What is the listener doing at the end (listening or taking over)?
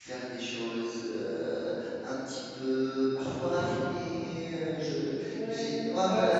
taking over